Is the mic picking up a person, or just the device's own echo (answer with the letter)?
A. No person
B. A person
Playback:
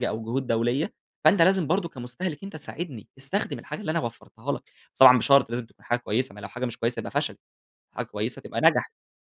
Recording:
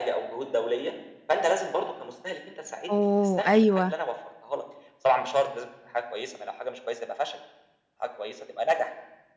B